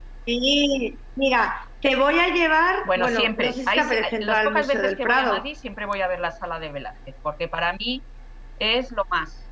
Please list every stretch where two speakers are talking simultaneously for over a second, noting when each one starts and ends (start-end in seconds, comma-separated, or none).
2.9-5.4